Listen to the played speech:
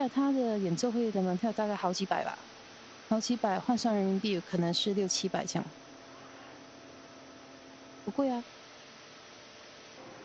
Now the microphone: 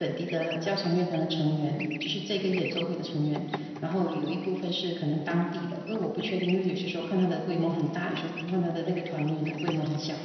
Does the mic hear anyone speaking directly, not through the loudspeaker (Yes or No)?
Yes